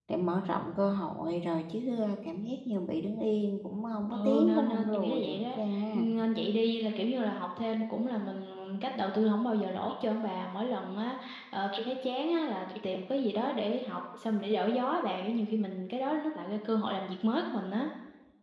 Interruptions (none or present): present